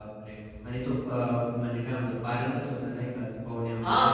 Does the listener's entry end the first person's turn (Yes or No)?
Yes